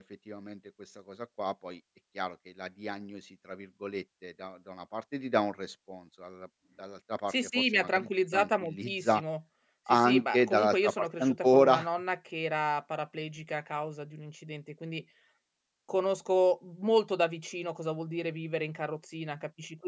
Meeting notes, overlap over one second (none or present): present